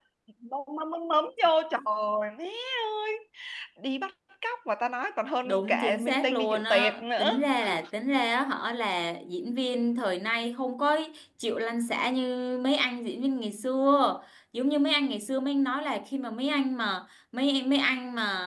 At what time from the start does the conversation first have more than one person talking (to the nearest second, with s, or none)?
5 s